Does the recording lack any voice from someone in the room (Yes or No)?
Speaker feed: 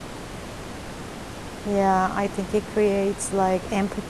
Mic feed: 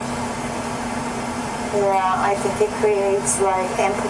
Yes